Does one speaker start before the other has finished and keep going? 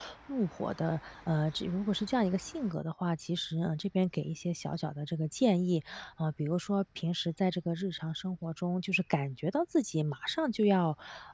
No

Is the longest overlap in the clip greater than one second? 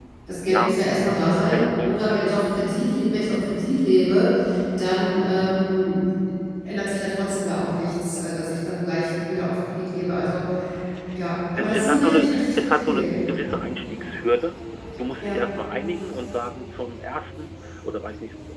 Yes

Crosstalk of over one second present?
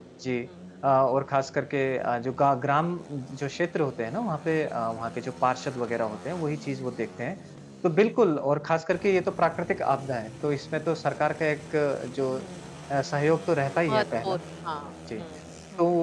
No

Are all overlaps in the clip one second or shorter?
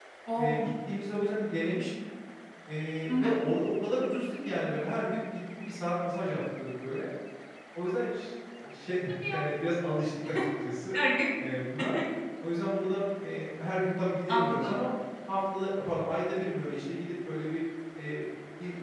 Yes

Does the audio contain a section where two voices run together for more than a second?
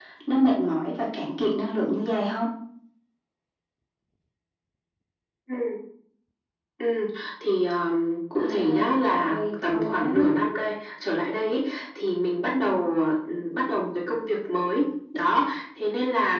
Yes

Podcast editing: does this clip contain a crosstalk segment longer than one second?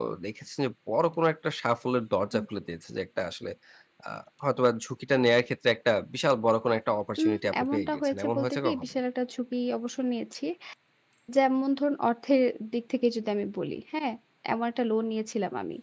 Yes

